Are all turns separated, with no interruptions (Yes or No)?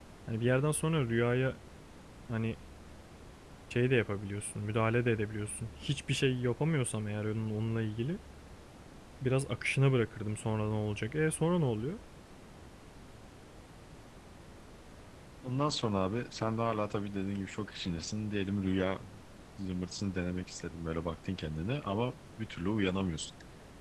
Yes